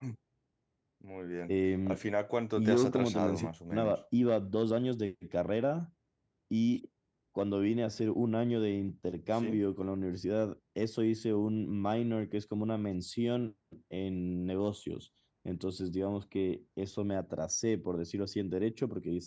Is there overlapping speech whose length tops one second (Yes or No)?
Yes